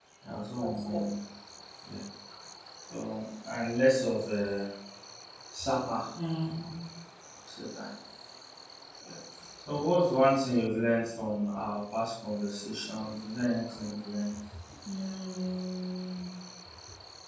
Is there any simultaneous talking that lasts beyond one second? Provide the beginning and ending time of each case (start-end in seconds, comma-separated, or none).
none